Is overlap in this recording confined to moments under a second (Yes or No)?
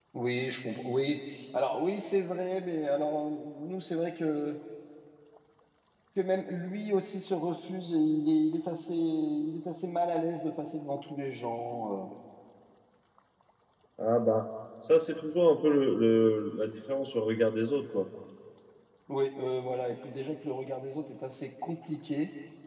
Yes